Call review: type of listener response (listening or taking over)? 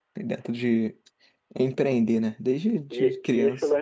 taking over